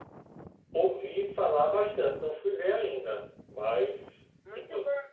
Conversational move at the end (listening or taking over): taking over